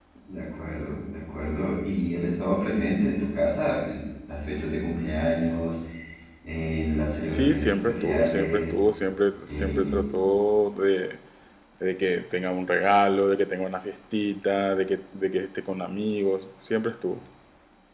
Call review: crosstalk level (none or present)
present